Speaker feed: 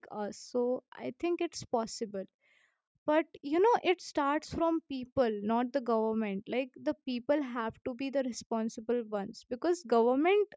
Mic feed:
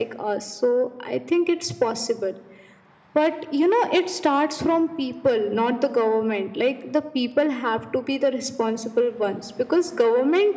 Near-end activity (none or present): none